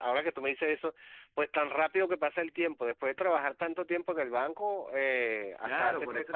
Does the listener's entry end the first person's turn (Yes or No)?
Yes